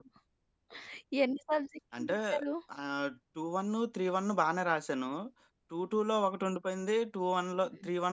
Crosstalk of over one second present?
No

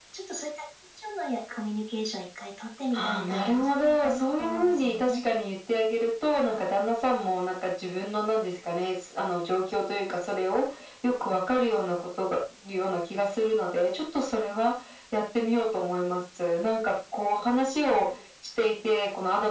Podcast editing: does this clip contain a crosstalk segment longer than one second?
Yes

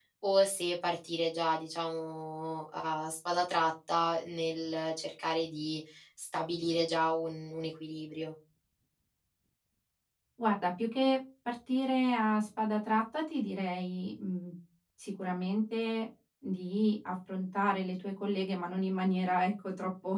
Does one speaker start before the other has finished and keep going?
No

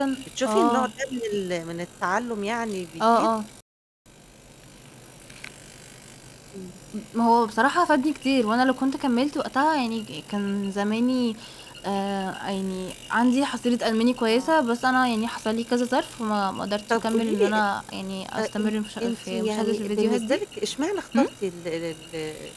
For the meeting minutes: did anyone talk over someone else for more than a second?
Yes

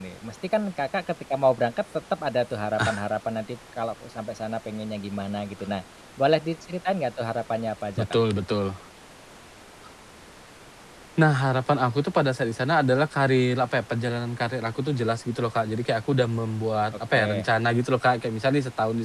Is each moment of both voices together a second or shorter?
Yes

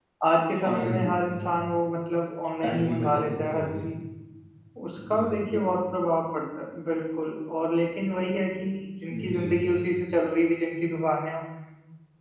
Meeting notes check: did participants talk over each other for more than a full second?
Yes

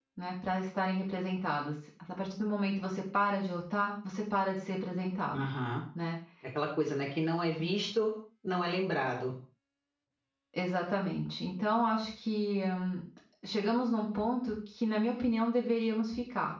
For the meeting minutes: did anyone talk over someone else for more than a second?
No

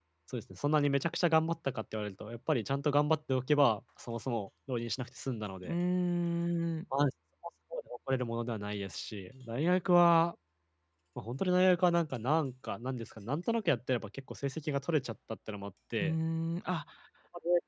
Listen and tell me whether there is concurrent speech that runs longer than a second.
No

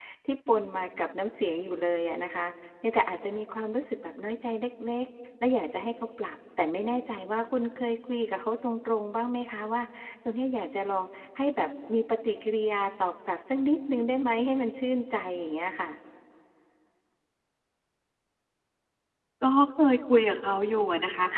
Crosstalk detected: No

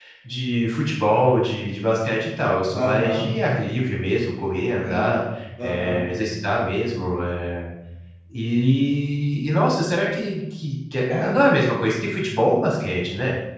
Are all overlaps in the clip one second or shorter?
Yes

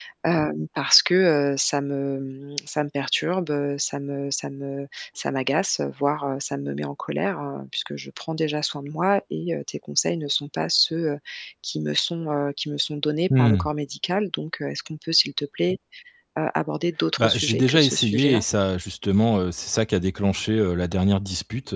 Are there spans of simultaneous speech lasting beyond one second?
Yes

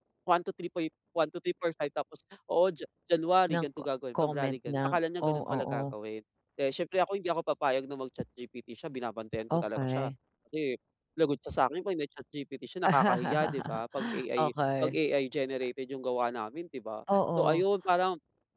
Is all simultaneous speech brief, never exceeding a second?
No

